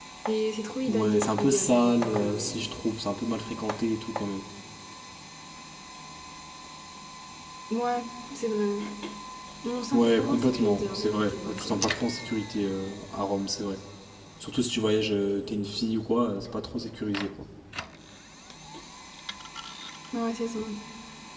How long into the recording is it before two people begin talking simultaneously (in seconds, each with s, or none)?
0.9 s